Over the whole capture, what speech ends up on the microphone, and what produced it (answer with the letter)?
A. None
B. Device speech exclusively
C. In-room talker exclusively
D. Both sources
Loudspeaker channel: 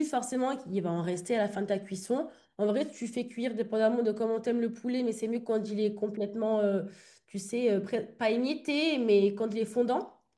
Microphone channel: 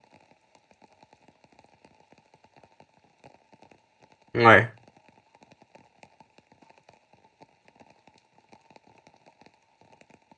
C